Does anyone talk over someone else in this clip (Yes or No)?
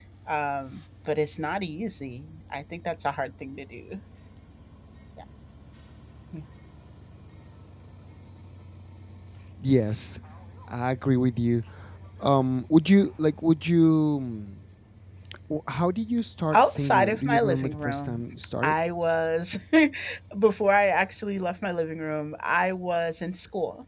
Yes